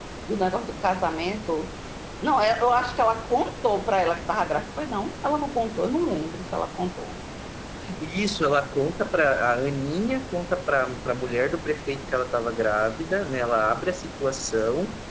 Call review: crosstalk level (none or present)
none